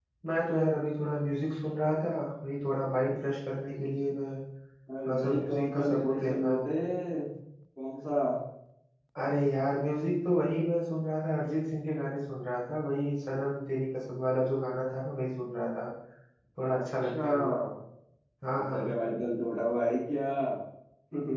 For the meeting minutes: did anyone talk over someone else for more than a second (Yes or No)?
Yes